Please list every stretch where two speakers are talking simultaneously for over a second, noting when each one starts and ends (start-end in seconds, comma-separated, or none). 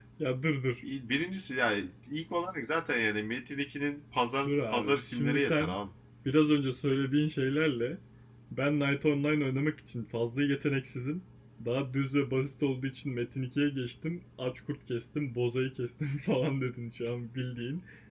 4.5-5.7